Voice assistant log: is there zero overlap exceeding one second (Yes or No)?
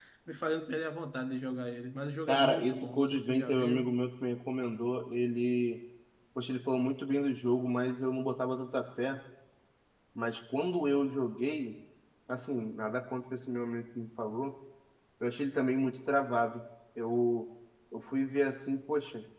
No